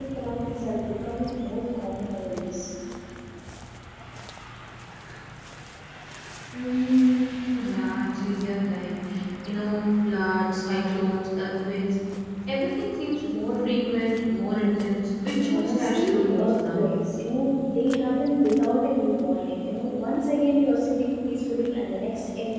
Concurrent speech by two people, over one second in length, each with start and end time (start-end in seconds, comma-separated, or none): 15.4-16.9